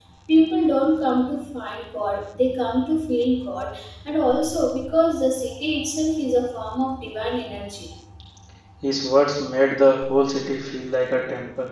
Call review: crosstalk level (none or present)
none